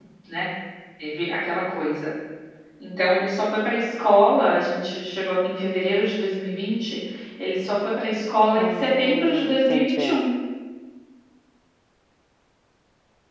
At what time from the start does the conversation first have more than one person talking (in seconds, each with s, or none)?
8.6 s